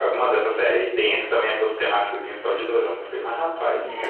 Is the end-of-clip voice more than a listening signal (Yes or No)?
Yes